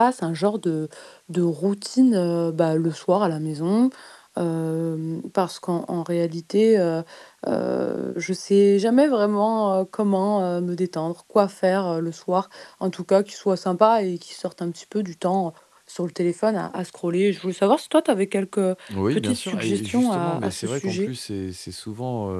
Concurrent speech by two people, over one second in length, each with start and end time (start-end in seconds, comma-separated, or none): 19.1-21.1